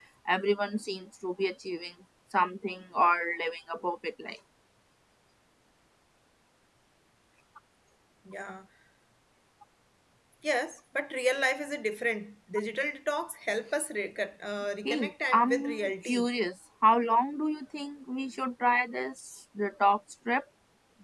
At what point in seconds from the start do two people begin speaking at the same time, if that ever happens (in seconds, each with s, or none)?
14.8 s